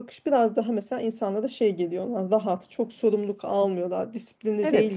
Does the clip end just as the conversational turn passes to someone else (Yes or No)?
Yes